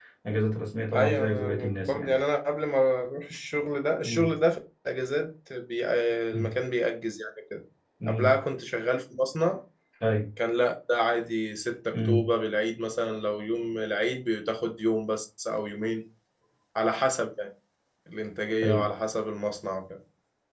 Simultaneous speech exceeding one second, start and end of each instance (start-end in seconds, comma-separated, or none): 0.9-2.1